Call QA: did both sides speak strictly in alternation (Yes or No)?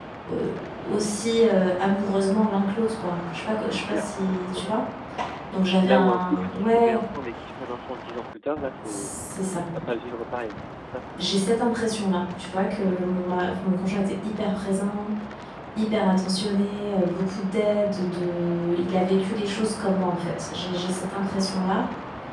No